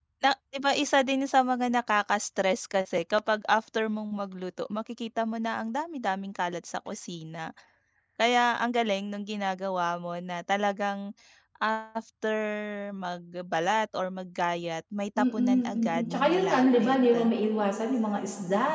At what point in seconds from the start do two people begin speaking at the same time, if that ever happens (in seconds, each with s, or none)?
15.2 s